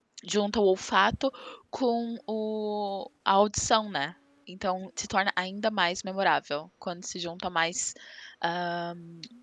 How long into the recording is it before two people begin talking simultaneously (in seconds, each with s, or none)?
none